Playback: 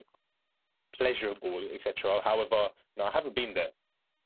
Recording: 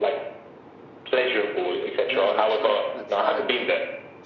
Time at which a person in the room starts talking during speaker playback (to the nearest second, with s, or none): 2 s